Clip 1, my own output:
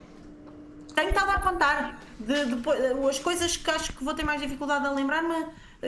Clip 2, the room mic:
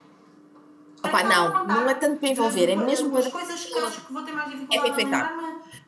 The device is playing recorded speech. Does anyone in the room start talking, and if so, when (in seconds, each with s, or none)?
1.0 s